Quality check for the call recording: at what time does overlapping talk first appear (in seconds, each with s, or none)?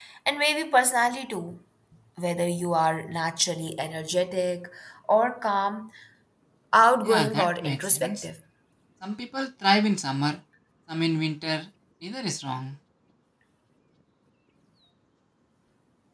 7.0 s